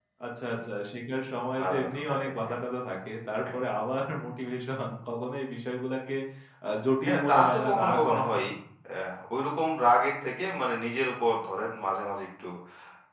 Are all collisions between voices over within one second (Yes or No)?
No